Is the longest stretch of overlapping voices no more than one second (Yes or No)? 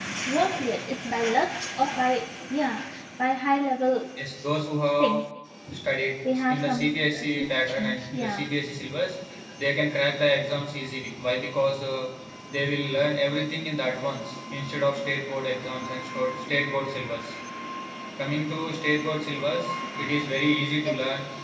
No